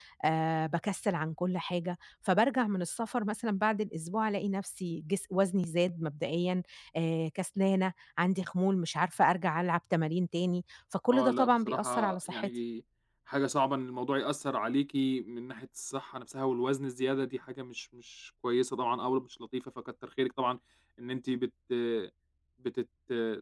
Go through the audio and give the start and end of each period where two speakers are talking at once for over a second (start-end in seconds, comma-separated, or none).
11.1-12.5